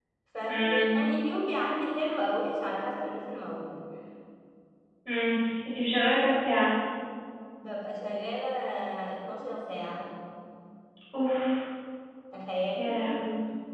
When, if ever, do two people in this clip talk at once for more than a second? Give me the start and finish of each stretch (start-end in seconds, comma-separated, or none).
none